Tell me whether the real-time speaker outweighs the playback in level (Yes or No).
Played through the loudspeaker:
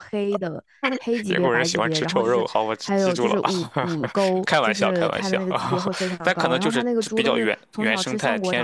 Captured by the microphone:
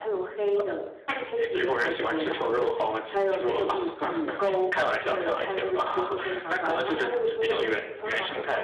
No